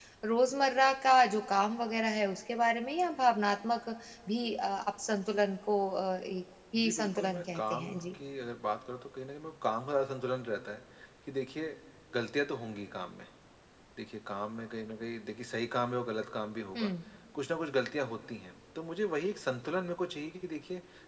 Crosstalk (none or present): present